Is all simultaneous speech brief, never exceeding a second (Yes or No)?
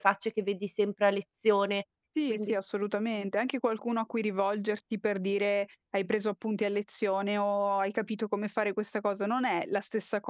Yes